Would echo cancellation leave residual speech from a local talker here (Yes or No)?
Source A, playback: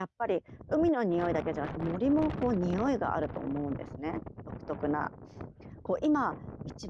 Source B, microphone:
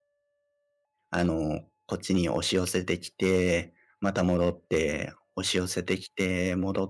Yes